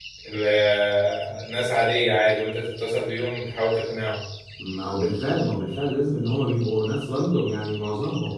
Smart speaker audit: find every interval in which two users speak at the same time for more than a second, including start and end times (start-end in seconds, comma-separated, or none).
none